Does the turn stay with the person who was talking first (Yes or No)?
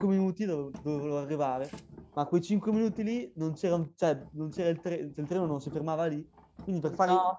Yes